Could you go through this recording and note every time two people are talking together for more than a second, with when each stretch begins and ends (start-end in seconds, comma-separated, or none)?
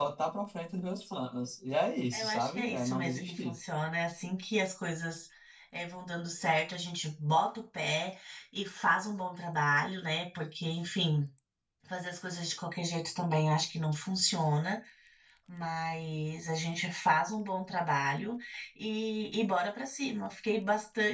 2.1-3.5